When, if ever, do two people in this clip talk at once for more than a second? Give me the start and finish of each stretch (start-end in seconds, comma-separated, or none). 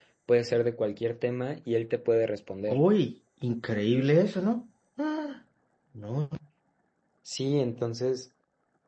none